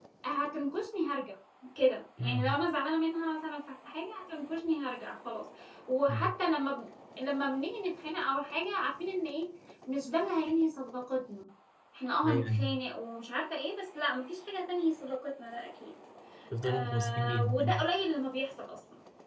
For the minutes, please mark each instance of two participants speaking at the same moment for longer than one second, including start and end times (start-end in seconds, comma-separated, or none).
16.6-17.8